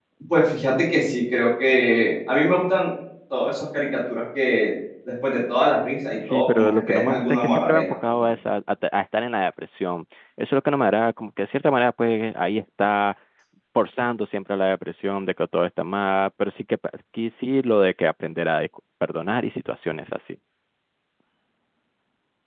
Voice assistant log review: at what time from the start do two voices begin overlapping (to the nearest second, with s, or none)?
6 s